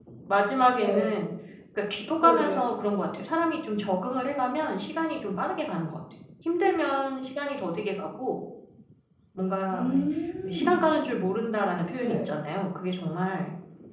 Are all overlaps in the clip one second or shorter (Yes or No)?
Yes